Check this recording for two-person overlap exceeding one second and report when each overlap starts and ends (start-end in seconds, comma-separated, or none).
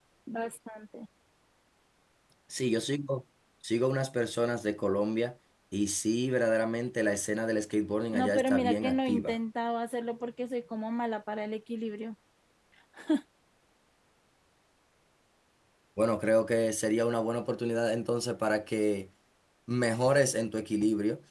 8.1-9.4